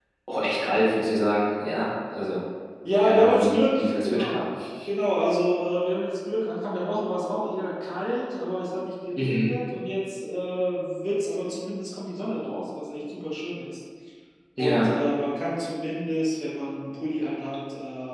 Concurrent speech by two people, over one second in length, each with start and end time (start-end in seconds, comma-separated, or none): 3.0-4.5